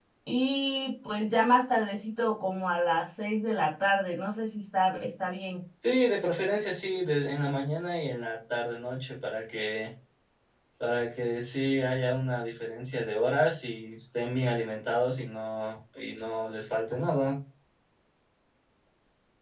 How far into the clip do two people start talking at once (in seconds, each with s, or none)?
none